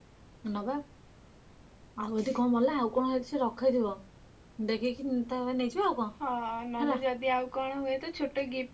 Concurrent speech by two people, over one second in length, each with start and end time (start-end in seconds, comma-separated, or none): none